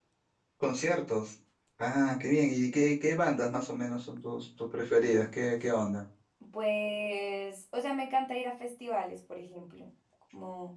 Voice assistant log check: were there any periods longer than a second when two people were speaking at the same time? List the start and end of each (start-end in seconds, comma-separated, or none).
none